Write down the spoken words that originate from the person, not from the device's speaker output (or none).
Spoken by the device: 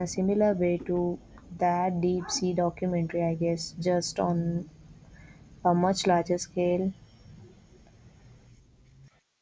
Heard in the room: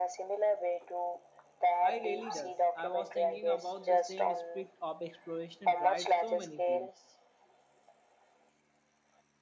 I really does. I was thinking about the same spirit of exploration drives so many fields.